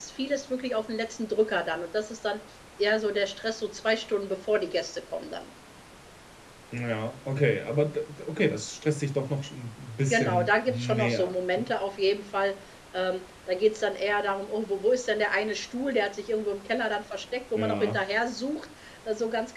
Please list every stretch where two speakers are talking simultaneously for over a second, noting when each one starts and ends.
10.0-11.7

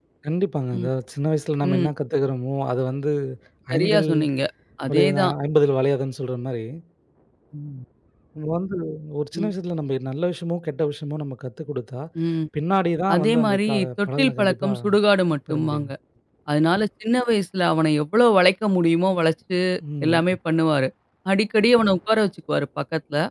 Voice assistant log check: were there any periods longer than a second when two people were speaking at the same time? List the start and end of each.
13.1-14.7

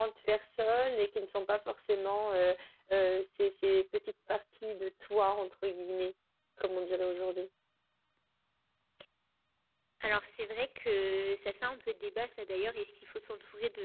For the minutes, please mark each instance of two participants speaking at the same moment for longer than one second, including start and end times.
none

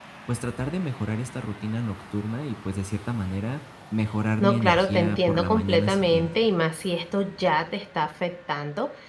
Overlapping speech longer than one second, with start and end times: 4.4-6.3

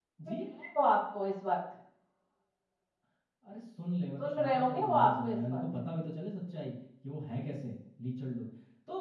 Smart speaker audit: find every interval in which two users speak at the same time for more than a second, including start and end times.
4.2-5.6

